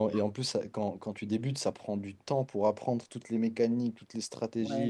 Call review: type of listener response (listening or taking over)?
taking over